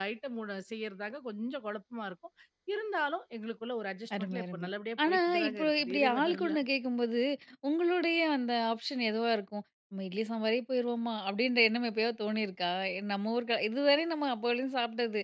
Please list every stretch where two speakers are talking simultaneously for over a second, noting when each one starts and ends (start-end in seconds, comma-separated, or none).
5.1-6.6